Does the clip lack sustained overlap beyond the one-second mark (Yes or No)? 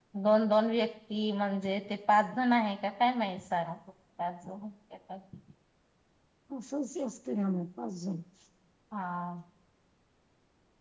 Yes